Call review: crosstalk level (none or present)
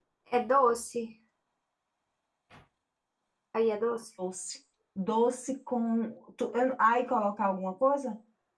none